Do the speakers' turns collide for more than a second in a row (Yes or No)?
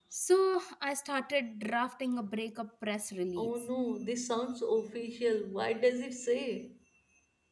No